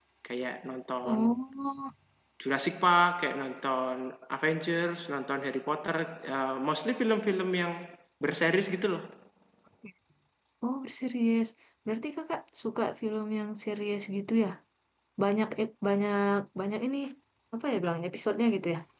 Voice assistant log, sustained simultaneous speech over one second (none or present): none